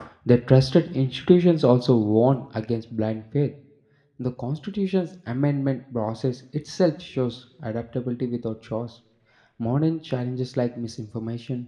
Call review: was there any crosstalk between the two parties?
No

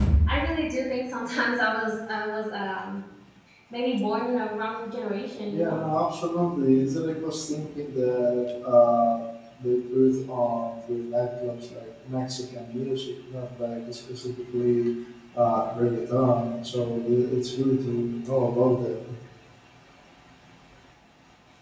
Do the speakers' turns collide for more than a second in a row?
No

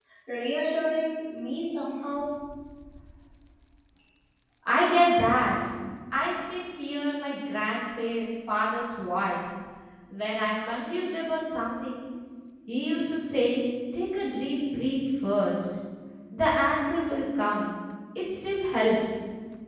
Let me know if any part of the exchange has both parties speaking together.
No

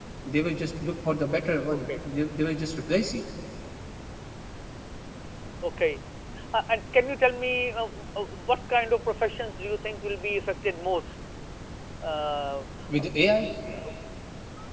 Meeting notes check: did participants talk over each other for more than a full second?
No

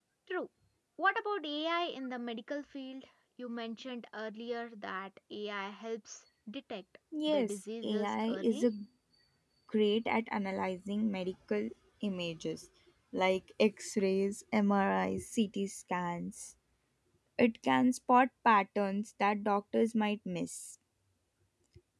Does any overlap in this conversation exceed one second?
Yes, from 7.1 s

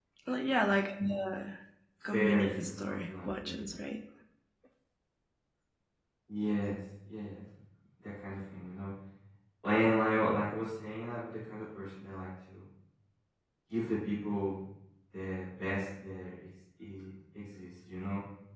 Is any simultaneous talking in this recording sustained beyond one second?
Yes, from 2.1 s

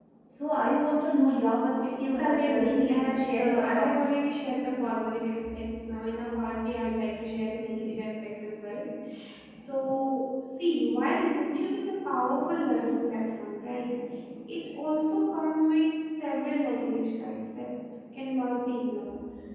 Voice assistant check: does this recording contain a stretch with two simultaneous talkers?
Yes, from 2.1 s

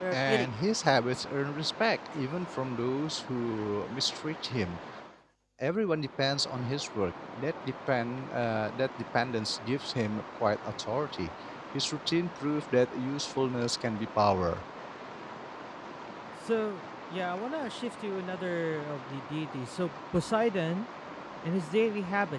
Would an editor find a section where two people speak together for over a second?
No

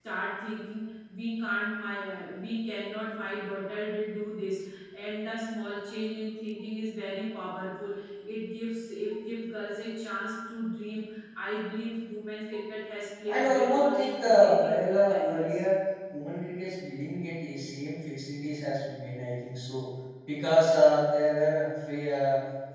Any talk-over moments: Yes, from 13.3 s

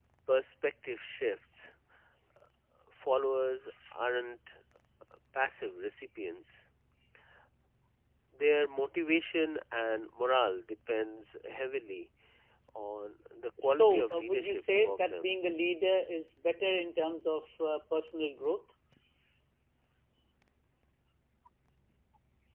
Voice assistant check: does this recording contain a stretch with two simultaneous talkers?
Yes, from 13.6 s

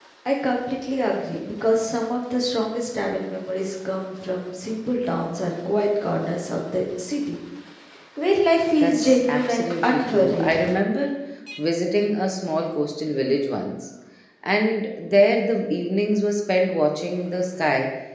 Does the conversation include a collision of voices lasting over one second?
Yes, from 8.8 s

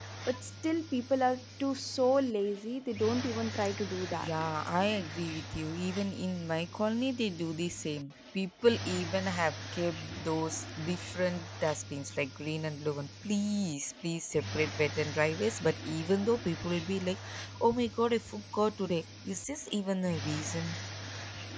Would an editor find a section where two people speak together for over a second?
No

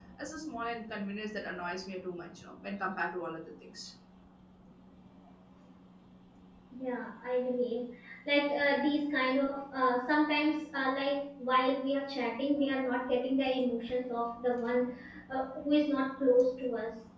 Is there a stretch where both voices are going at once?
No

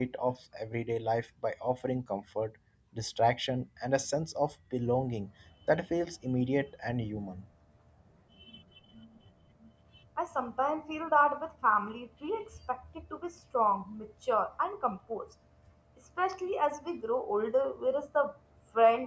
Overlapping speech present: No

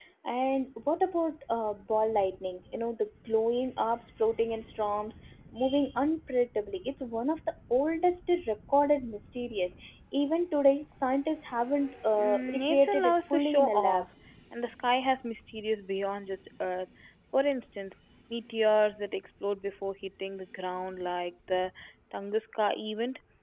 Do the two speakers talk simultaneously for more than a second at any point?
Yes, from 12.2 s

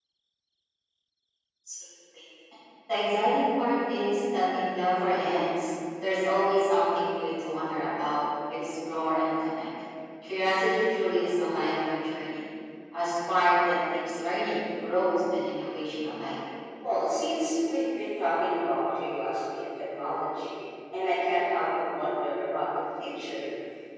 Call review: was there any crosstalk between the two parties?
No

